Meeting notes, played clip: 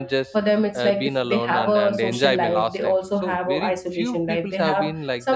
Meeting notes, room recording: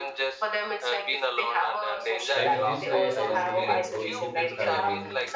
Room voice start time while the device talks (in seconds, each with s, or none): 2.3 s